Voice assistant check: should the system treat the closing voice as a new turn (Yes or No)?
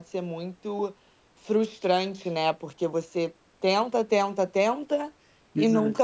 No